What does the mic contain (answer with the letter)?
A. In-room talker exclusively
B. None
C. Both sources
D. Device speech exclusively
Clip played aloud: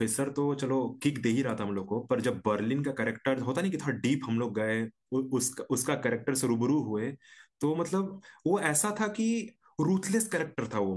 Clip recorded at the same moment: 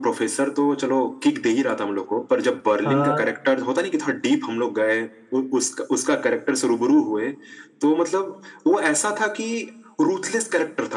C